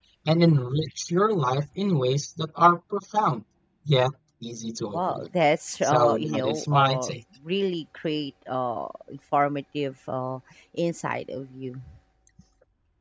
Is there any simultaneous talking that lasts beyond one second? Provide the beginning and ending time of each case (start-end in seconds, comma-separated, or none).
5.8-7.1